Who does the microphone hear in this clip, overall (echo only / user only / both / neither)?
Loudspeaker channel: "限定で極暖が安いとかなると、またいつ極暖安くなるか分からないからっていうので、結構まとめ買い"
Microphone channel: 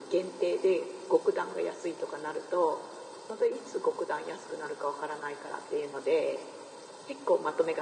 echo only